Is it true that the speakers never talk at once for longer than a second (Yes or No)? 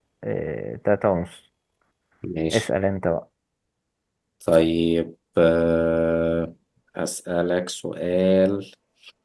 Yes